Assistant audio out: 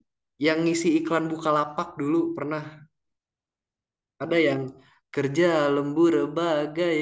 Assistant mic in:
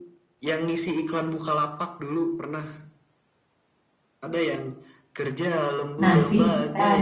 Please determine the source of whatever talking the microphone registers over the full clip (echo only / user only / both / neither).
both